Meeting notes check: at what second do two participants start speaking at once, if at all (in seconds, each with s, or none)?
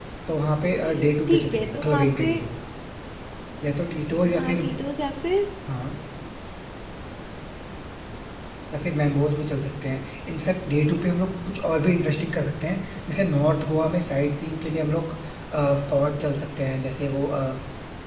0.8 s